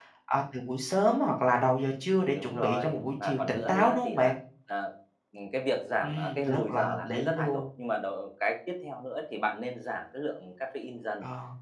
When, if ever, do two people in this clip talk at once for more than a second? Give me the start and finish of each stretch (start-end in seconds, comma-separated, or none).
2.3-4.3, 6.0-7.6